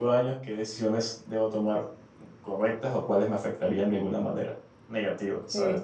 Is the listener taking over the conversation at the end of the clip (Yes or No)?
No